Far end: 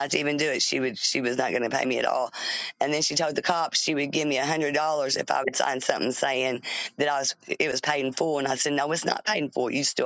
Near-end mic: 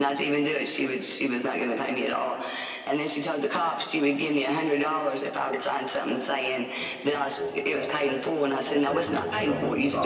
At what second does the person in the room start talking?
6.8 s

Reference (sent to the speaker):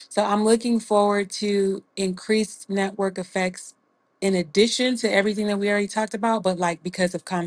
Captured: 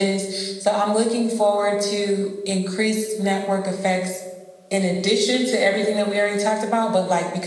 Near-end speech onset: none

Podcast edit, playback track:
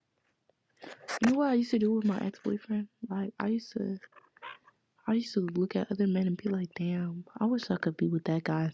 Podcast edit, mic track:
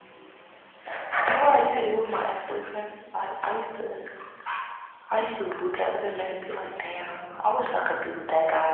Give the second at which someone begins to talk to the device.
none

